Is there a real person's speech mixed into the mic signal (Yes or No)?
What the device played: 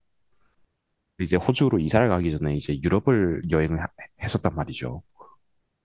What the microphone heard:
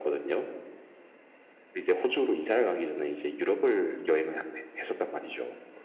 No